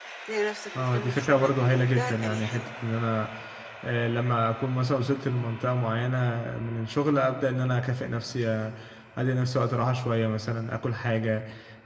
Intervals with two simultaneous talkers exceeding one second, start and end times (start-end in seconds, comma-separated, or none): 0.8-2.7